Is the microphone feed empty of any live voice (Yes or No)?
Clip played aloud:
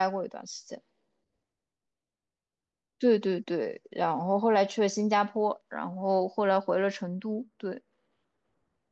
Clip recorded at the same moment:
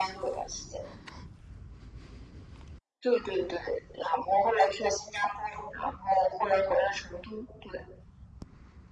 Yes